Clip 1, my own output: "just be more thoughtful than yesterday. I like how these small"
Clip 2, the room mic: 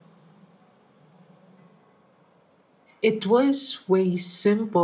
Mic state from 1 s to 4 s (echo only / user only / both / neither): user only